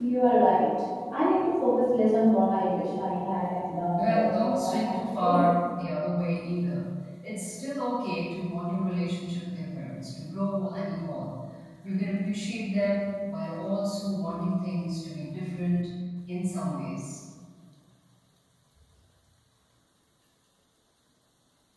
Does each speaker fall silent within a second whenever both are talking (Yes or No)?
No